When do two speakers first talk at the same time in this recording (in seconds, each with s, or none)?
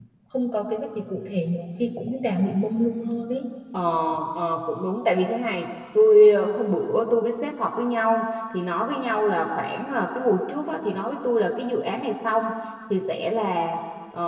none